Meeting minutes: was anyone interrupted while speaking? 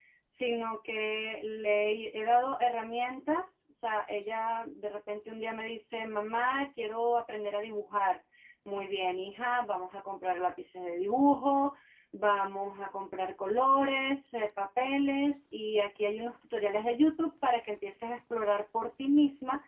No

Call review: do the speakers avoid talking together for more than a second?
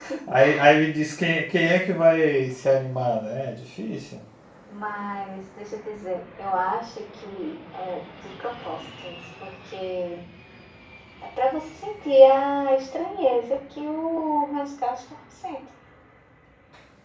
Yes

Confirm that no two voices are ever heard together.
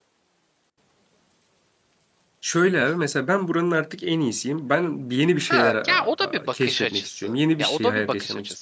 No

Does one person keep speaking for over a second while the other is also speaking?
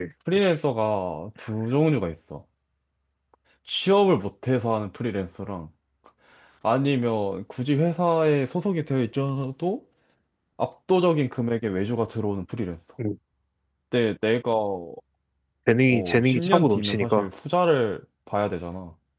Yes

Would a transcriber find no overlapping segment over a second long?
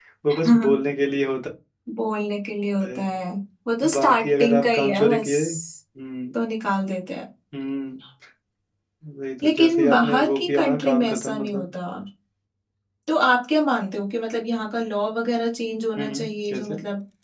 No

